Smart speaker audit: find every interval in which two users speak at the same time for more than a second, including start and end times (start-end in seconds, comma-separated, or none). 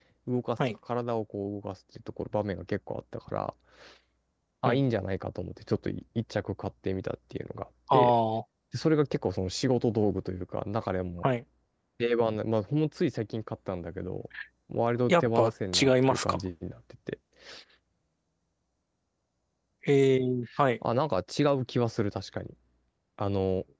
15.1-16.4